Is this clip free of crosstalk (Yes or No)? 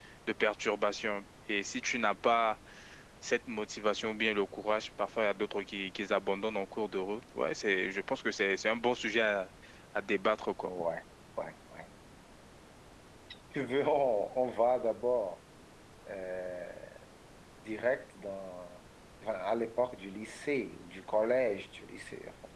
Yes